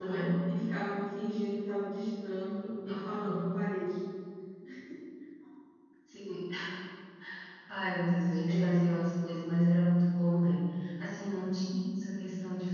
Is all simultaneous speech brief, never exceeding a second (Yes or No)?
Yes